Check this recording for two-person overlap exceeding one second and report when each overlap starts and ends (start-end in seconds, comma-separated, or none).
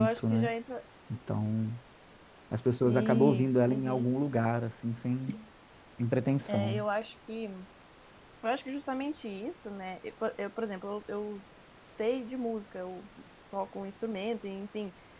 2.9-4.1